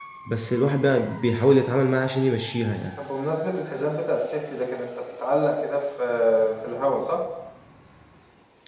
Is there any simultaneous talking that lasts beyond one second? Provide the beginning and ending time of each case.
none

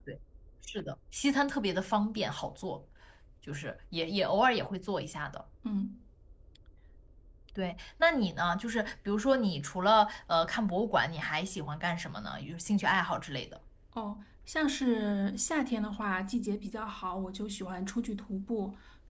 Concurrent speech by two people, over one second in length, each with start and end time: none

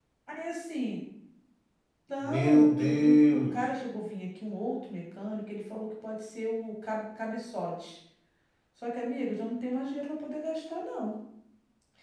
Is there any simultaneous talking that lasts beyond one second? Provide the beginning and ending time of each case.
2.2-3.6

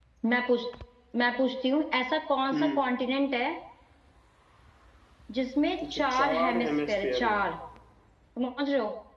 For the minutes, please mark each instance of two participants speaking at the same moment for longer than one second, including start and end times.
5.9-7.4

